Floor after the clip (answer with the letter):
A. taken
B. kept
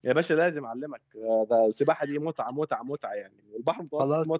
A